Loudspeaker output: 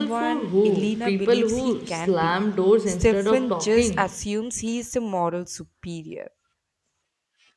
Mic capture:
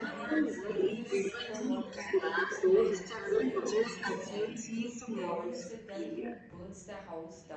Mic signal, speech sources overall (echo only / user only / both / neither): both